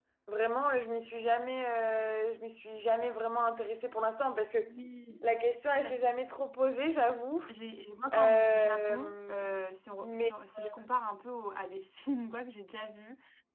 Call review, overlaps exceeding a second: present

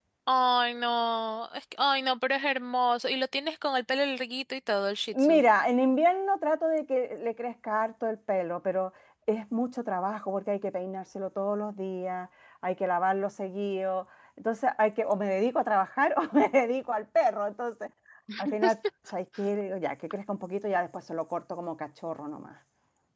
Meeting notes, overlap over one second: none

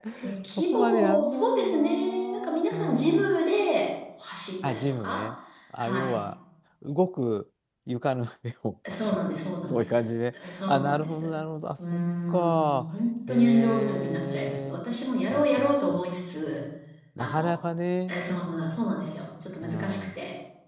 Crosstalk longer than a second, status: present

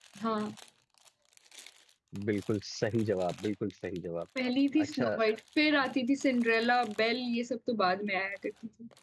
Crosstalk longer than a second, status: none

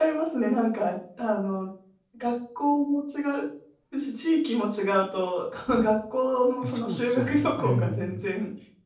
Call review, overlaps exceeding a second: present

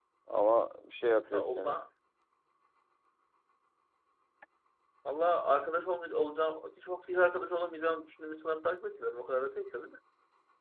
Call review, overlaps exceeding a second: none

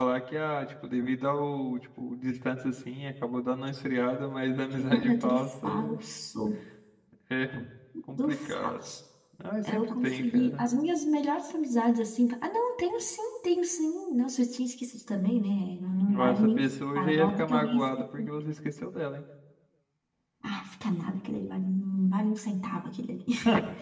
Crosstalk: present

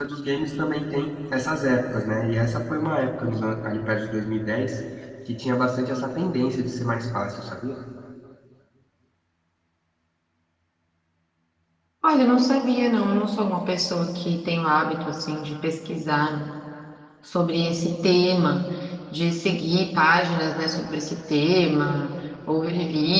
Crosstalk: none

